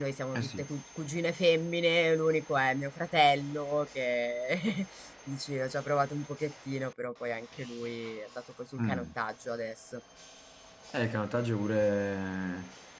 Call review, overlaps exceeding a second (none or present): none